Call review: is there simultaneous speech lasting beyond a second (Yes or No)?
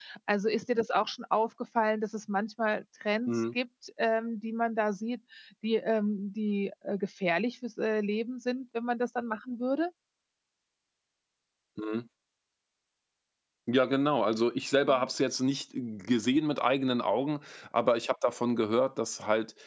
No